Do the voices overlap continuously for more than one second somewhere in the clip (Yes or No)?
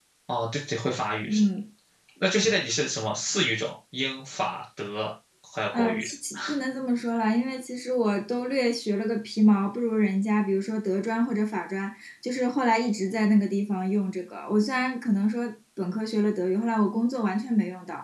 No